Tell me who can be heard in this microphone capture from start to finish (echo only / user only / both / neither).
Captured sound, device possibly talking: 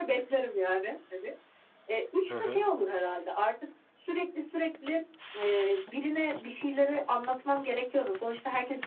both